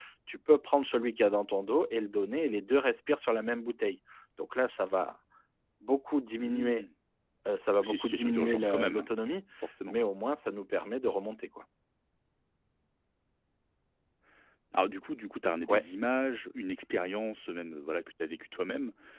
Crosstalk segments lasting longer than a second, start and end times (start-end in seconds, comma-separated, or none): 7.8-9.1